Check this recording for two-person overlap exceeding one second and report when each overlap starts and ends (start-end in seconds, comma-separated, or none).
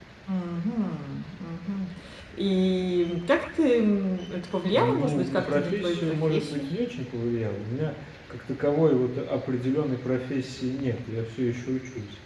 4.7-6.7